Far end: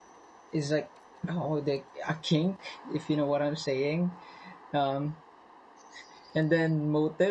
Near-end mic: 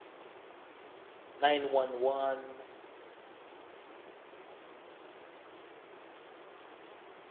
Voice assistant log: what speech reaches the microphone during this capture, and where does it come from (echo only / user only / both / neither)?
user only